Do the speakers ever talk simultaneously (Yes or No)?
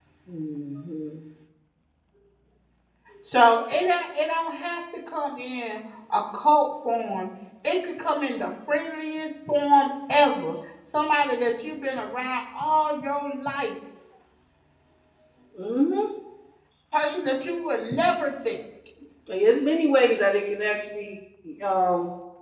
No